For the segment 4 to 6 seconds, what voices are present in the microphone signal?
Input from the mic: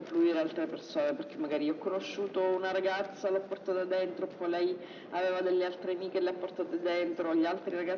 echo only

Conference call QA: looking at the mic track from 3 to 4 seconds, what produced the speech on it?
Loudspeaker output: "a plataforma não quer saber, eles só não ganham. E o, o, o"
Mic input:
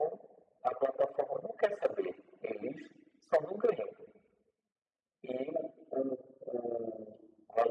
echo only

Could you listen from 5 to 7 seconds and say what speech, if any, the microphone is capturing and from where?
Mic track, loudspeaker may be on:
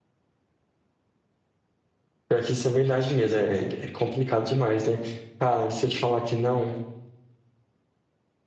user only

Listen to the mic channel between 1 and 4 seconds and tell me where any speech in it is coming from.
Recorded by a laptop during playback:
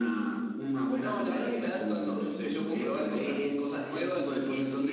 echo only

